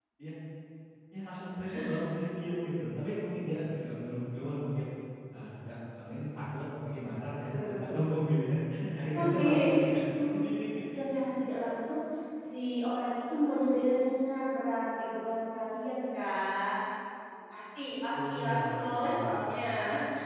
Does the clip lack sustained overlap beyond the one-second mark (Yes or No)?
No